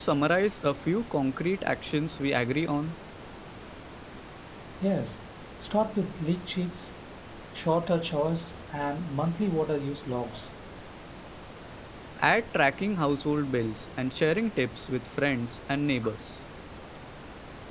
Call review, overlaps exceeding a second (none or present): none